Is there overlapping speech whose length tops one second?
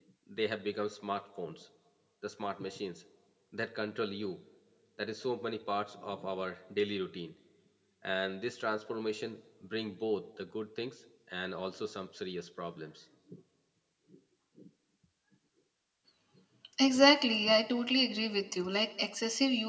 No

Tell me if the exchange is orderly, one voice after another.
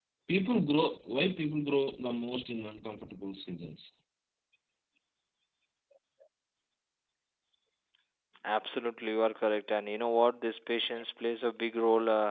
Yes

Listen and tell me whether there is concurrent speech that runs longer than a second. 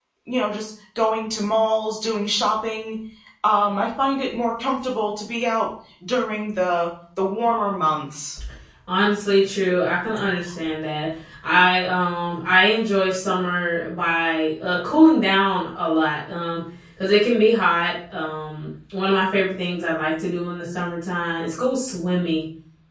No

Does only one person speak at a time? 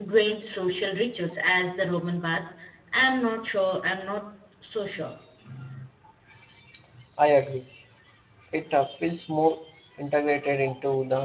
Yes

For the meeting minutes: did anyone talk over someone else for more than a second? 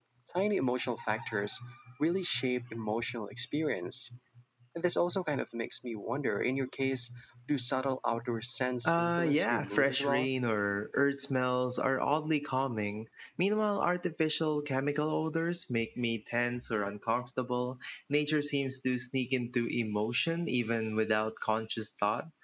Yes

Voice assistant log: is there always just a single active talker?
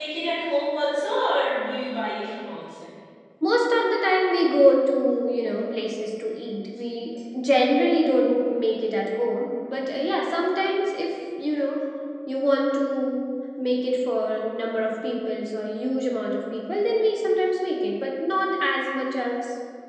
Yes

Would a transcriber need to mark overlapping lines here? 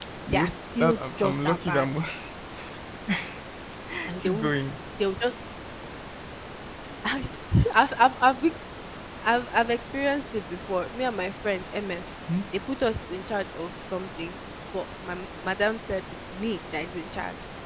Yes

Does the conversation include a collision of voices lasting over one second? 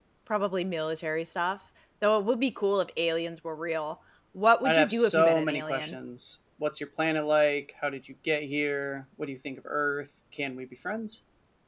Yes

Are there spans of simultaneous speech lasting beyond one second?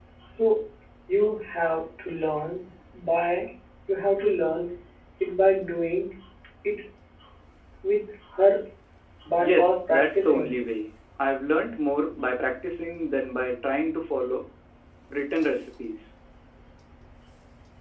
Yes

